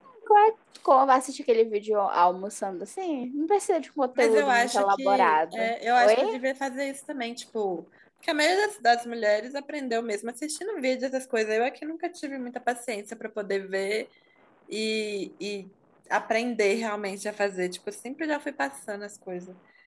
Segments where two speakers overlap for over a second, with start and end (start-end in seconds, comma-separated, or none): 4.2-6.2